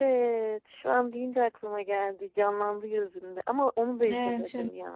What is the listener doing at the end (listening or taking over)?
taking over